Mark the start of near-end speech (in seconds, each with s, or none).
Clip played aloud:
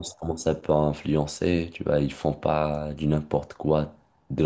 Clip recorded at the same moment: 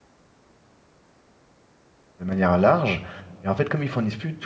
2.2 s